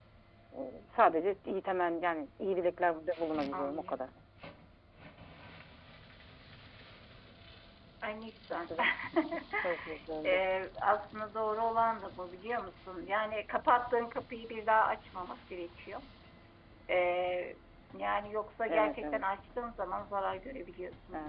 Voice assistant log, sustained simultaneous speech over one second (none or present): none